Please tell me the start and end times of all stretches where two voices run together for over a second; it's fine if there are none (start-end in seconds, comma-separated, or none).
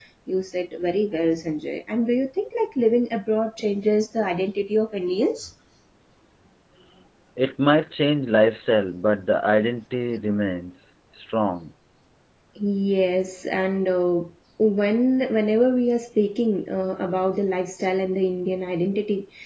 none